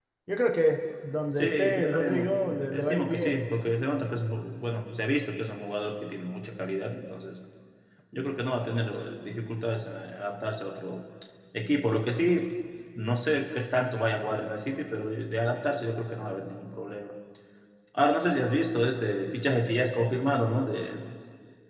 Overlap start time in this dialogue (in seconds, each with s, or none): 1.4 s